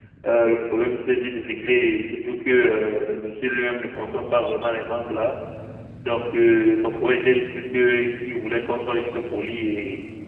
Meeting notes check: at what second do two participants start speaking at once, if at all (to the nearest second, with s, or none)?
none